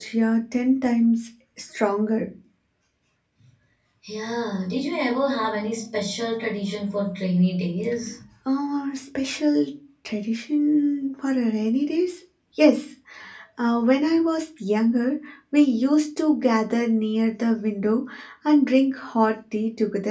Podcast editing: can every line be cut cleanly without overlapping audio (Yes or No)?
Yes